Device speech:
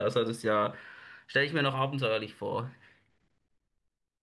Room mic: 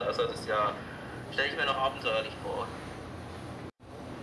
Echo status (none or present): present